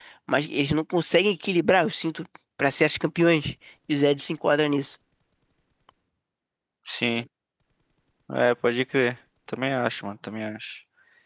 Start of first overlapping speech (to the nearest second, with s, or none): none